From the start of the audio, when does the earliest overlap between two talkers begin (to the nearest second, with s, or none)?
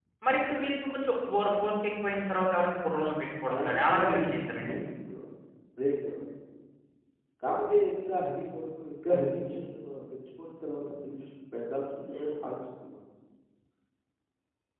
3 s